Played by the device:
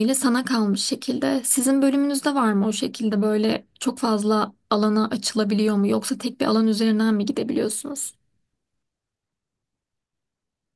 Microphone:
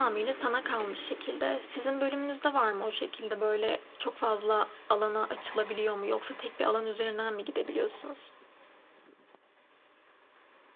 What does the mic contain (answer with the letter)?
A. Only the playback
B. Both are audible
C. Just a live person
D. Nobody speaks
A